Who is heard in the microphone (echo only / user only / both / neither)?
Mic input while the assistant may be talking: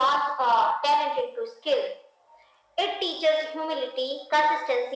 echo only